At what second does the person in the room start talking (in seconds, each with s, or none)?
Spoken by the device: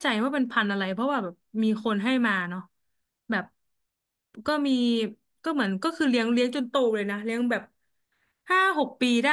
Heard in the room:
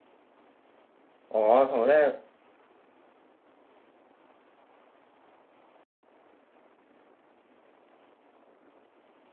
1.3 s